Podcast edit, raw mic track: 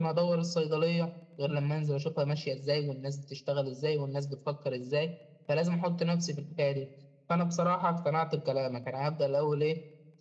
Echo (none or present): present